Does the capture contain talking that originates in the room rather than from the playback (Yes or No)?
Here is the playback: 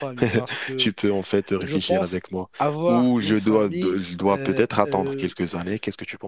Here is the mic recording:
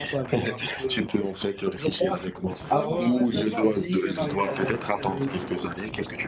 Yes